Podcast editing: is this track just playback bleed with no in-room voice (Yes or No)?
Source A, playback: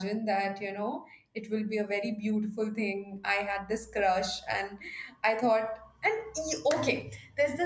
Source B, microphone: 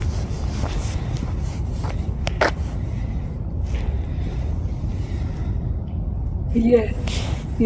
No